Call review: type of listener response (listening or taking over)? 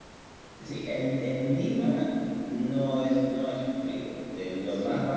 listening